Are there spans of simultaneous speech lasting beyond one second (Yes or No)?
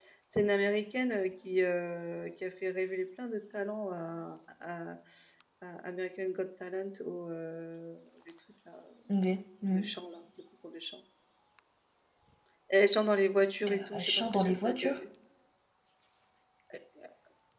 Yes